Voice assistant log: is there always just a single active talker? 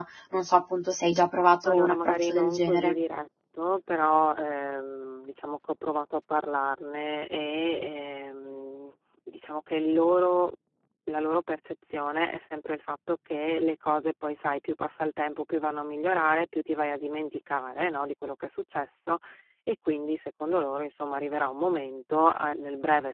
No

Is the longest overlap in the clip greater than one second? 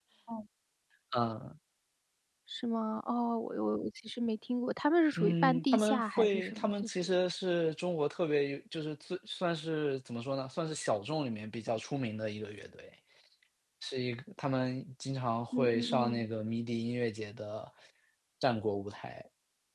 Yes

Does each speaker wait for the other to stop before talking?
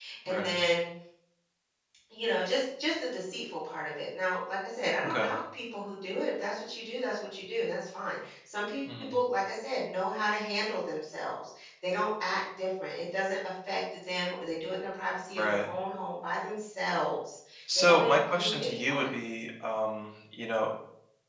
No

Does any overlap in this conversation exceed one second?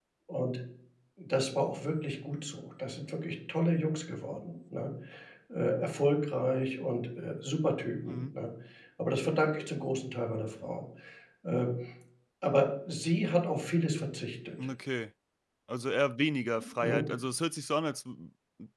No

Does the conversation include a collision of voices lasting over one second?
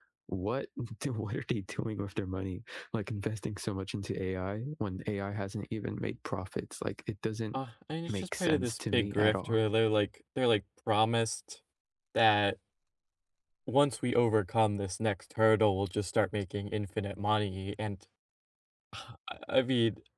Yes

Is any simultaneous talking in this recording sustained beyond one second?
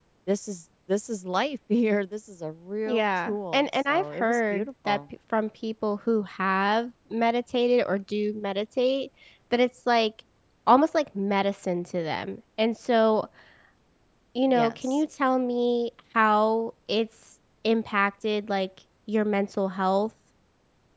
Yes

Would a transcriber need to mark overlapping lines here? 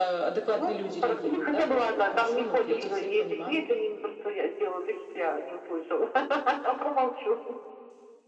Yes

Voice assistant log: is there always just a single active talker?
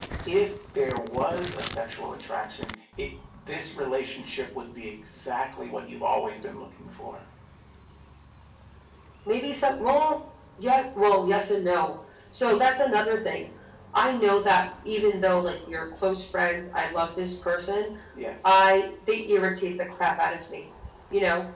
Yes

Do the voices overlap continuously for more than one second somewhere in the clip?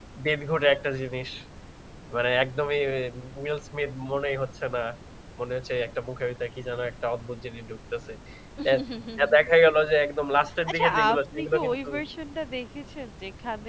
Yes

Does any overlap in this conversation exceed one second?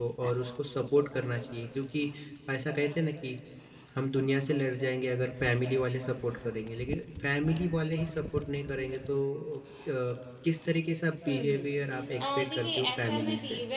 Yes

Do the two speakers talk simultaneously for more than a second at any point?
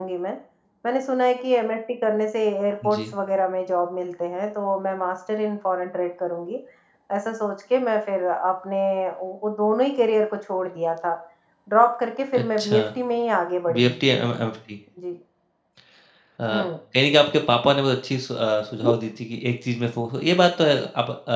No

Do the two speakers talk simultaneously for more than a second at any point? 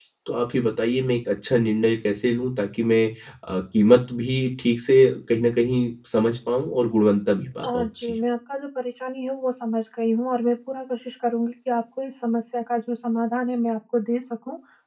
No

